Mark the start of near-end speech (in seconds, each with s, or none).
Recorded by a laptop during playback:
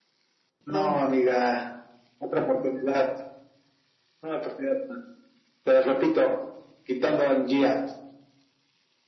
0.7 s